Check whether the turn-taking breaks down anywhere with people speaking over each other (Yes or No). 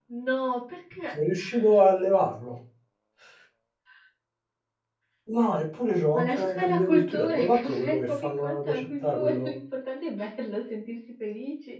Yes